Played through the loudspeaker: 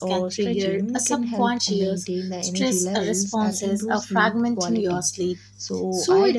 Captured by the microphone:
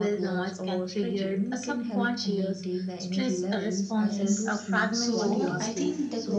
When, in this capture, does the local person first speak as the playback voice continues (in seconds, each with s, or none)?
4.0 s